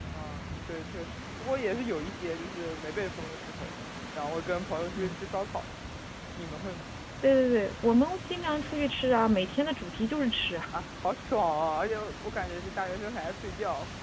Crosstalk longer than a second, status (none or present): none